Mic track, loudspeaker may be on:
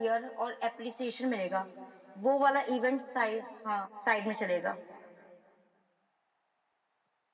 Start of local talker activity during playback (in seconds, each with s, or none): none